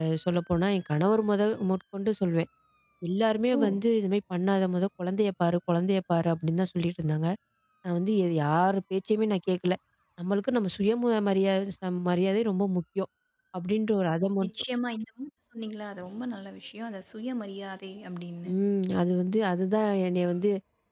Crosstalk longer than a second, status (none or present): none